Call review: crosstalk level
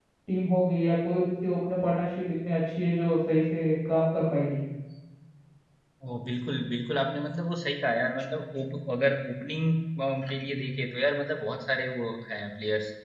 none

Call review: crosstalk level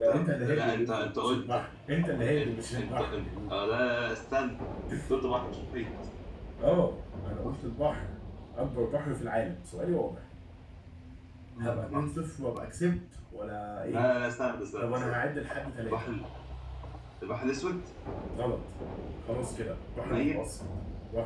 present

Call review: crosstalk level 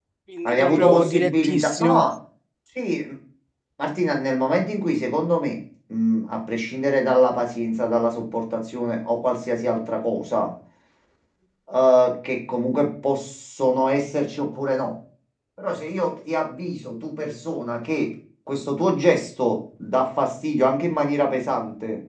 present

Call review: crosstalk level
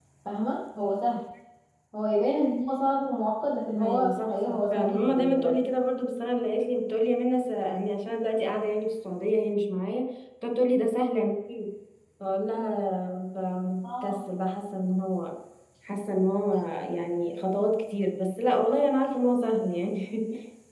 present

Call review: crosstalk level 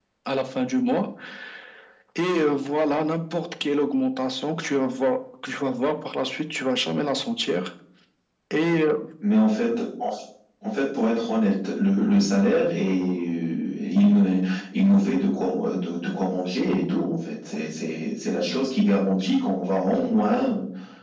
none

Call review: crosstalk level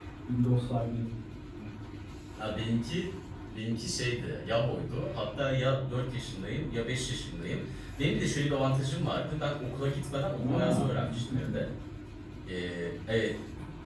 present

